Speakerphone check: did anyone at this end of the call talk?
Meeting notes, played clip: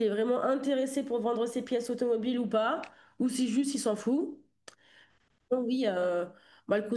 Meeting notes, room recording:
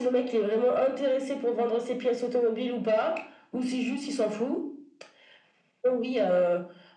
No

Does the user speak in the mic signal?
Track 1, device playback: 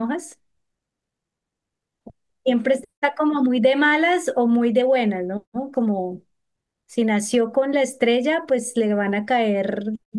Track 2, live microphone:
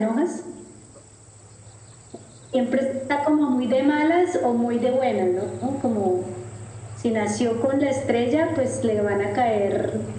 No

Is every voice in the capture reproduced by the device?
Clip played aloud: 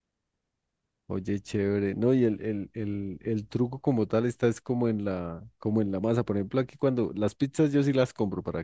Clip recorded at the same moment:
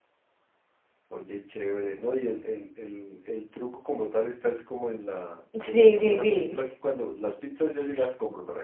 No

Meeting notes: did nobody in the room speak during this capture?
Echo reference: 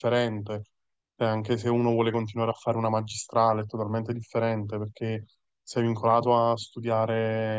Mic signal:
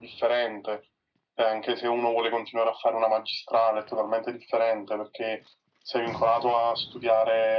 Yes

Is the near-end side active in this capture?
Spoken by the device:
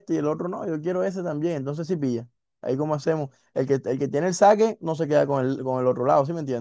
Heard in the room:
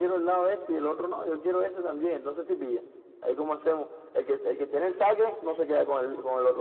No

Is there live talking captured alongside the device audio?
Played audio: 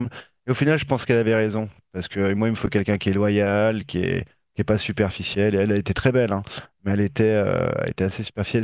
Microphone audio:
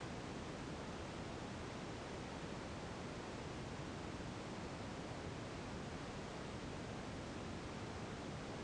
No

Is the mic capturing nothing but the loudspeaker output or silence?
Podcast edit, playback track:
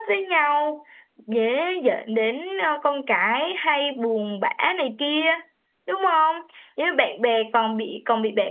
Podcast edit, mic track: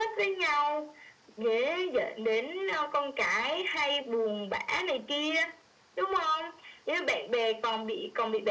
Yes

